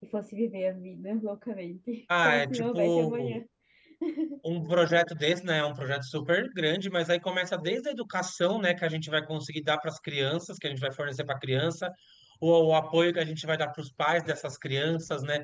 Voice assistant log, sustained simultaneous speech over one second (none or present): present